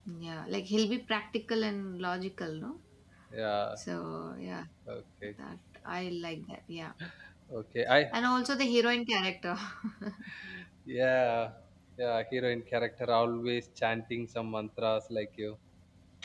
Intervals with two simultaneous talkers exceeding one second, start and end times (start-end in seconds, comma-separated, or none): none